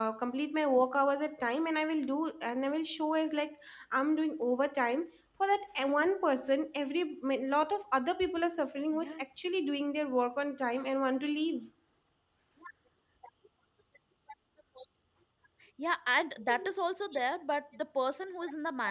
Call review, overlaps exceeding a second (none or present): none